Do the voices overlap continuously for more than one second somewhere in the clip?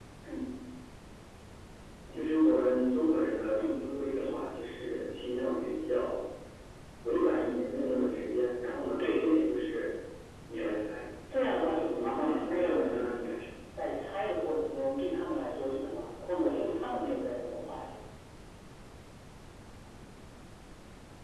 Yes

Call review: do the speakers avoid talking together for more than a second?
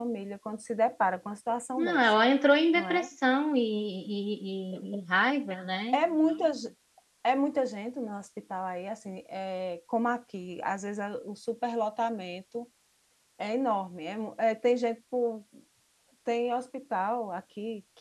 Yes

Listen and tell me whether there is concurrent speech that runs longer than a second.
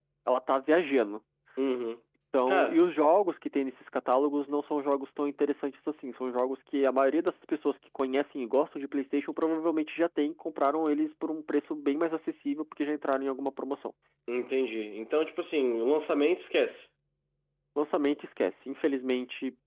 No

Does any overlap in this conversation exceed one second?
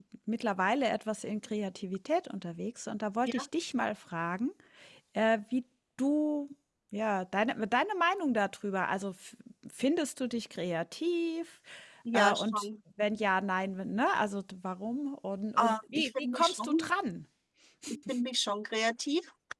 Yes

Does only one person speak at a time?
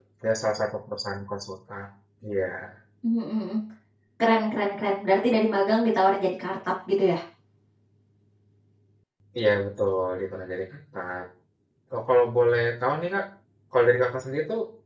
Yes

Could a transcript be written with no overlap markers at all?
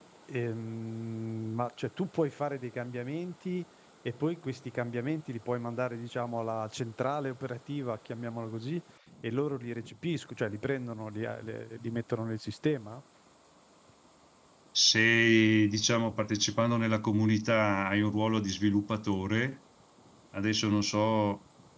Yes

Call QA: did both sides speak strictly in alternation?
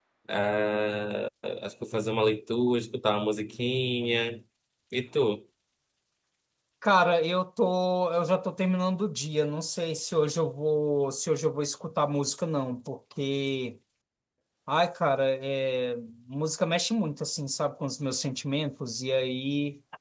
Yes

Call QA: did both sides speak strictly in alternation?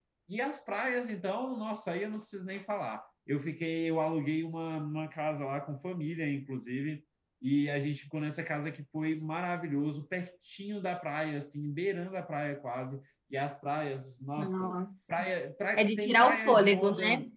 No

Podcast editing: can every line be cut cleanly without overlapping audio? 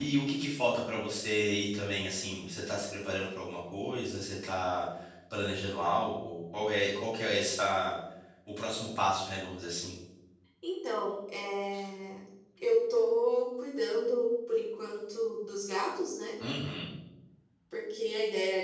Yes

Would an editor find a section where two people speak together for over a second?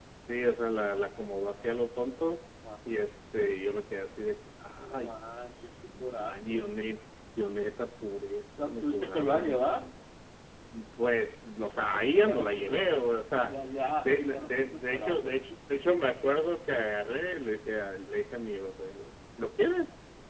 Yes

